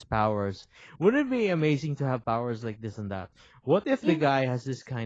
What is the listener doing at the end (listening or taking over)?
listening